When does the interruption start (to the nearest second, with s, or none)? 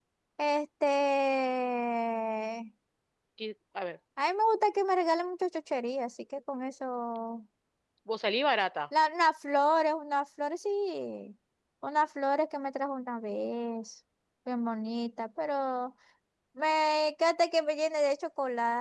none